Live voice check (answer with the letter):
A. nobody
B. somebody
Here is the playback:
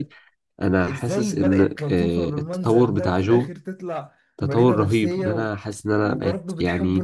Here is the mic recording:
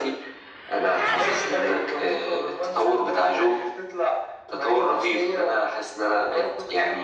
A